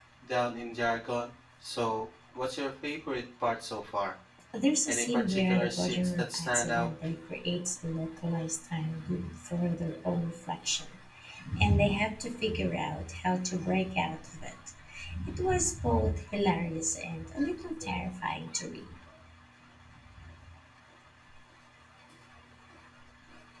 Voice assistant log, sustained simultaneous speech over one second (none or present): present